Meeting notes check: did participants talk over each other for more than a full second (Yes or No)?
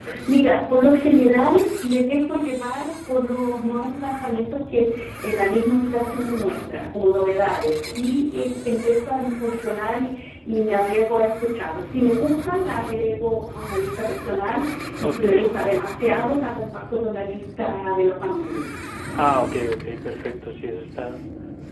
No